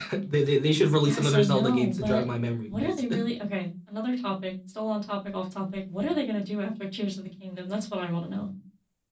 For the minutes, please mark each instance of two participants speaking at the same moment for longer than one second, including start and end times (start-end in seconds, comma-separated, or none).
1.0-2.2